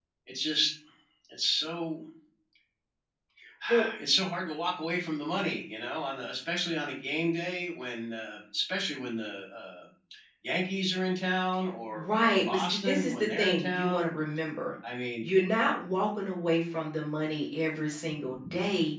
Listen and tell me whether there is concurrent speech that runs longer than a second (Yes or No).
Yes